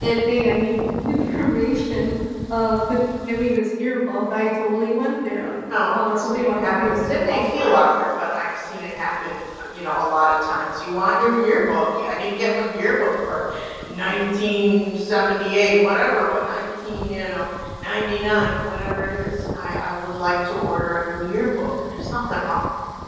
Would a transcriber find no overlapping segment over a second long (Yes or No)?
No